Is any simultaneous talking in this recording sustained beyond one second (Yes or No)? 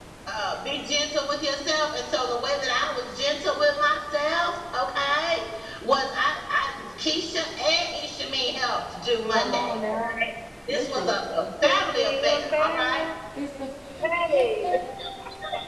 Yes